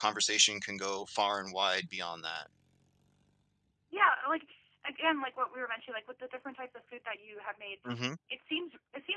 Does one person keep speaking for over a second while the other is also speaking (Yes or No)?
No